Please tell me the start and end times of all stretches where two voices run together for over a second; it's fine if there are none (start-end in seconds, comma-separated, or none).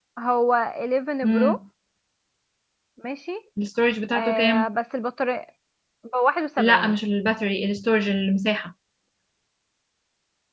none